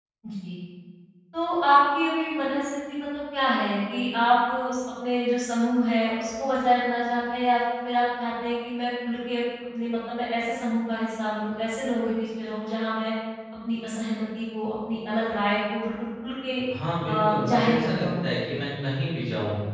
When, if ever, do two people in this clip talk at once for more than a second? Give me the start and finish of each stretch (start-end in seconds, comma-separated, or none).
17.1-18.3